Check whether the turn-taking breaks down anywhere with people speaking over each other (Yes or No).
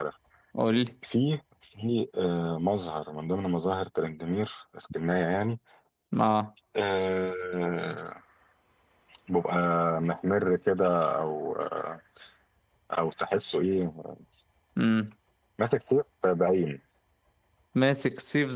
No